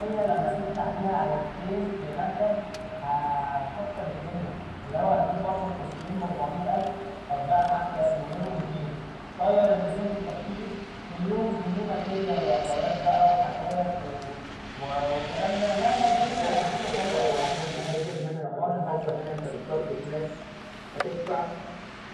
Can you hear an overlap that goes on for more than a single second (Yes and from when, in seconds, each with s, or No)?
Yes, from 16.2 s